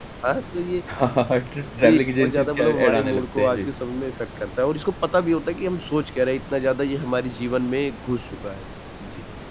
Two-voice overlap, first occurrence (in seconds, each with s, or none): 1.8 s